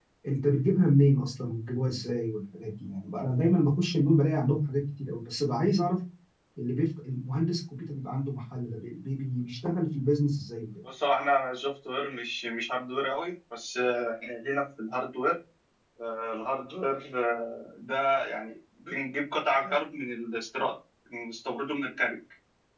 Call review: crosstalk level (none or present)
none